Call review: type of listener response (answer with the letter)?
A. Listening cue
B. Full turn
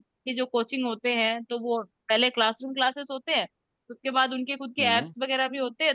A